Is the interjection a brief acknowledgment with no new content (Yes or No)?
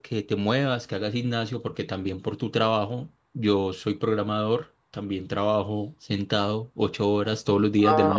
No